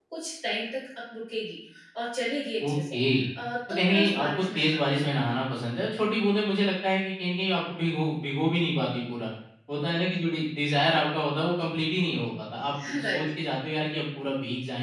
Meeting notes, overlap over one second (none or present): present